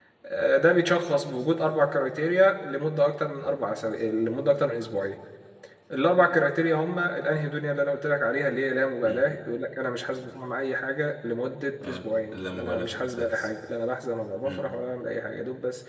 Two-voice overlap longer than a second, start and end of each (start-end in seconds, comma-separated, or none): 11.9-13.5